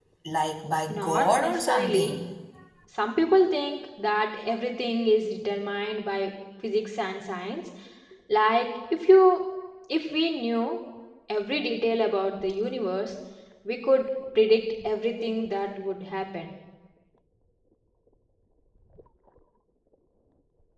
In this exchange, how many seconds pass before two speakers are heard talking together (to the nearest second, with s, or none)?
1 s